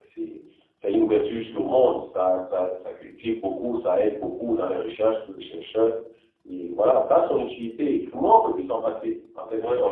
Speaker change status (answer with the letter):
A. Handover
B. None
A